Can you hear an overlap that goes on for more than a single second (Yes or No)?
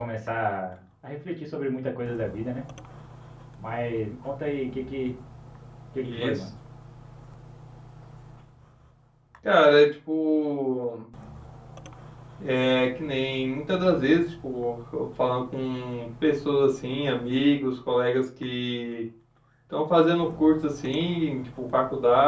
No